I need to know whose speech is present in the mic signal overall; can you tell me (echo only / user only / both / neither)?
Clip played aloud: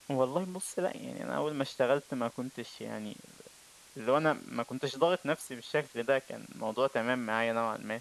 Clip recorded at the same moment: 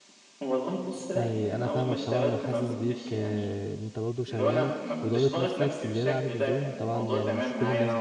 both